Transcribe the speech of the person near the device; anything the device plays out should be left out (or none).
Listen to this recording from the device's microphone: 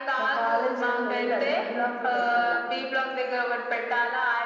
none